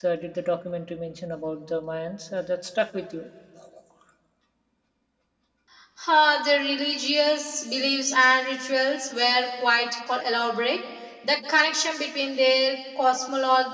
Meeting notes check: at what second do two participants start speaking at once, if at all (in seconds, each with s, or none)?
none